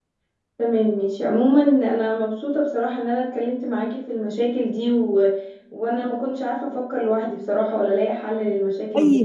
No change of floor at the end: No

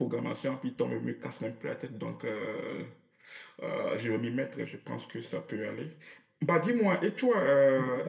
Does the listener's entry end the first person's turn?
No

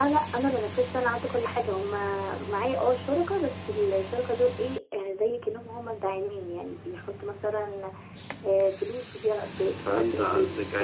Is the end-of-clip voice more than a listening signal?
Yes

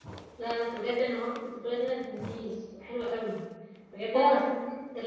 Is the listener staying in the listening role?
Yes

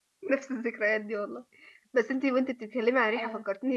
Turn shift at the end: No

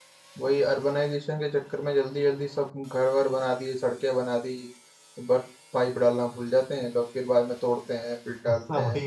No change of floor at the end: No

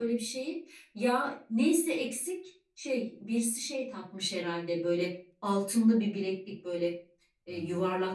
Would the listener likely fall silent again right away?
Yes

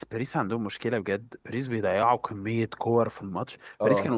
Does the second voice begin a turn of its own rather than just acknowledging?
No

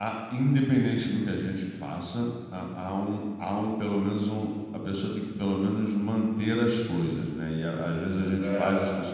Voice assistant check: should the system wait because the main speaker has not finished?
Yes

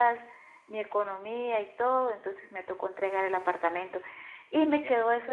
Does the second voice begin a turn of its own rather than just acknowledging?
No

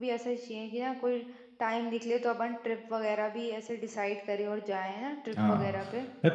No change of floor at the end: No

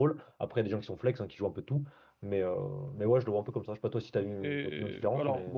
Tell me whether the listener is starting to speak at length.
Yes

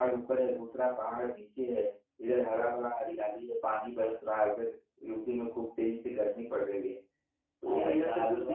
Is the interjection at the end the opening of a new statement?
Yes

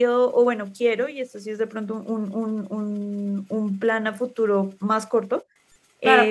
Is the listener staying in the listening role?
No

